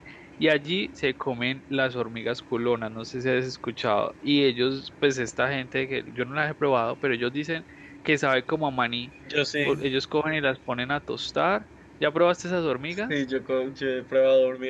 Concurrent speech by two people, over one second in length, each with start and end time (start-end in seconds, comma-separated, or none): none